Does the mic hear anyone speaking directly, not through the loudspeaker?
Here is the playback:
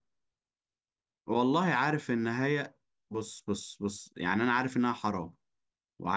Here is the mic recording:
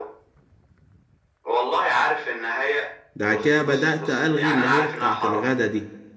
Yes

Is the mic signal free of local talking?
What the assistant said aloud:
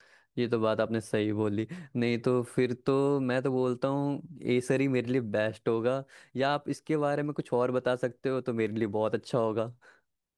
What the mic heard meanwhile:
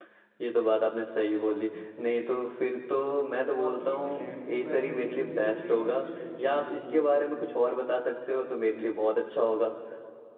No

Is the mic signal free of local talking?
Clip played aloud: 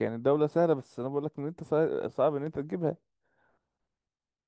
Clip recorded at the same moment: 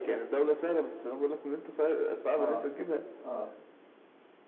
No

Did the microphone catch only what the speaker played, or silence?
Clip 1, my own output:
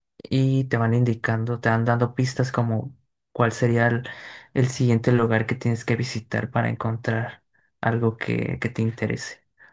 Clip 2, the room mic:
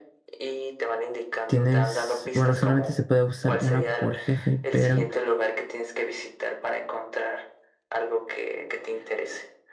No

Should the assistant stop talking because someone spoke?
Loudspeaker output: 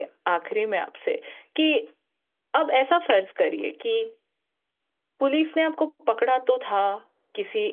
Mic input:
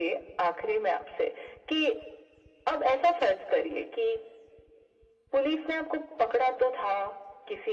No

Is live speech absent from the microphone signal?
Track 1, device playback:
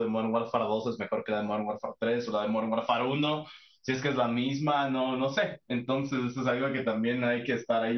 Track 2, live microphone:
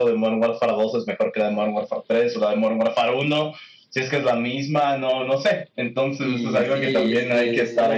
No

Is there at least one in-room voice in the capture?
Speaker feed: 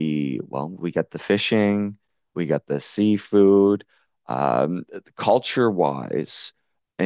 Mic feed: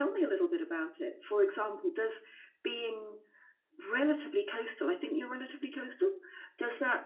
Yes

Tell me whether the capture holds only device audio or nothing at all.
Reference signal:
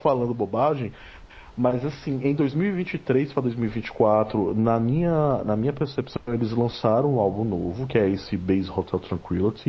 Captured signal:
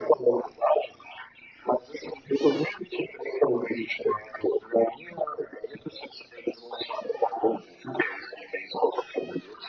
Yes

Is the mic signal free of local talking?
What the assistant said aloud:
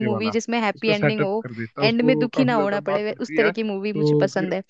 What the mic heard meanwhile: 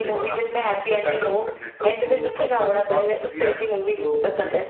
Yes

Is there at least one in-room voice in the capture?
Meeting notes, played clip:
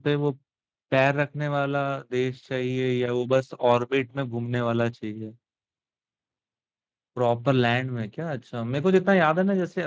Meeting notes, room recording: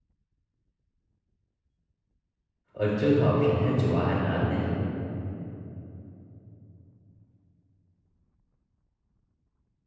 Yes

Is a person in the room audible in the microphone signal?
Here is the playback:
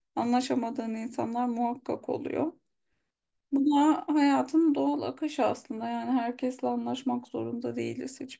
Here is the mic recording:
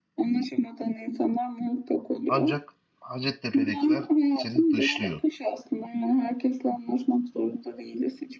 Yes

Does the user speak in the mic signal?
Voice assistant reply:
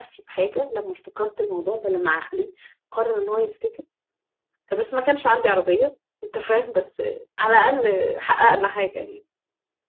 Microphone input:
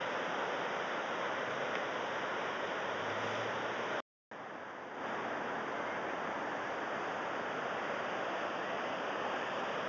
No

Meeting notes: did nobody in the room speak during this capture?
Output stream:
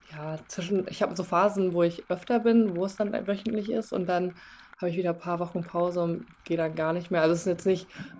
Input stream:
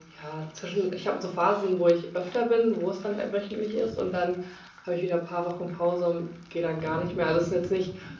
Yes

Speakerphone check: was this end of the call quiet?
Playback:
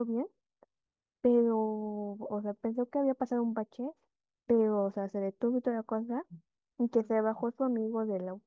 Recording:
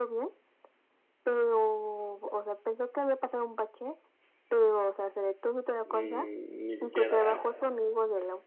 No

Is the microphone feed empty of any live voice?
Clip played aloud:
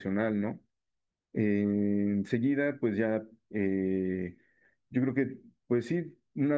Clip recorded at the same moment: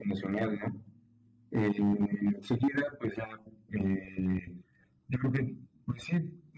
Yes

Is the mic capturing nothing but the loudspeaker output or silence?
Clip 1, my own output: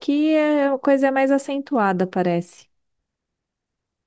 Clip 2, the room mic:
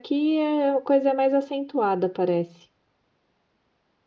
Yes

